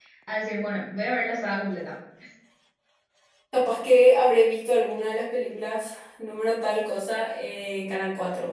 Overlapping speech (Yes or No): No